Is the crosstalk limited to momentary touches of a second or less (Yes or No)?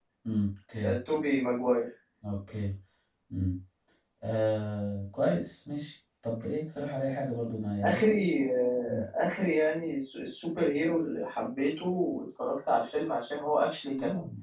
Yes